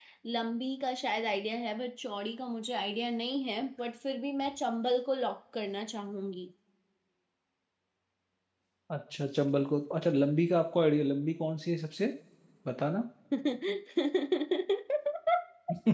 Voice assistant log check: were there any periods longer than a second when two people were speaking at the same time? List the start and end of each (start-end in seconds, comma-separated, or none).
none